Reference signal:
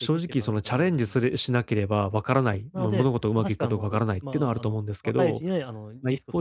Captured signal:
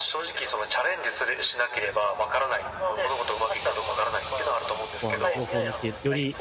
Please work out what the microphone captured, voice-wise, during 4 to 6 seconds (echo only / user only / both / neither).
both